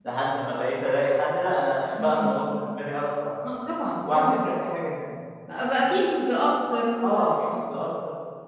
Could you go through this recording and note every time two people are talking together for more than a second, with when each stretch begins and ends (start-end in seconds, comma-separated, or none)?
none